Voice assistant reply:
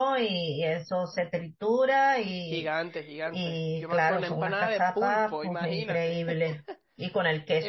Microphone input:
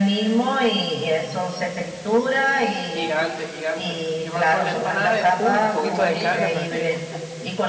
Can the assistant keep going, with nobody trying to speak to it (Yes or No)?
No